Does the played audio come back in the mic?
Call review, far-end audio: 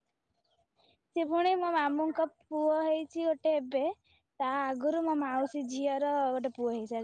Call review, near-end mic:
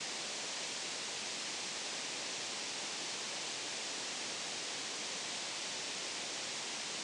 No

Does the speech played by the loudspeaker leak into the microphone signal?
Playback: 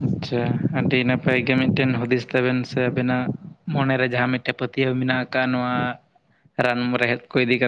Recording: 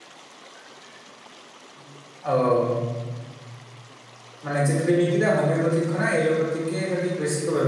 No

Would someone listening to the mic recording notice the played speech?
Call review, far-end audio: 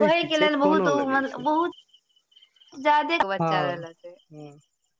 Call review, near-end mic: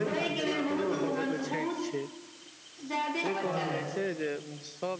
Yes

